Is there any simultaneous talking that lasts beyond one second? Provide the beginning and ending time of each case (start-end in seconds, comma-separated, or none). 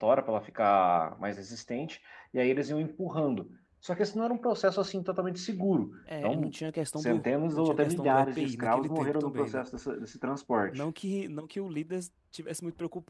7.0-9.6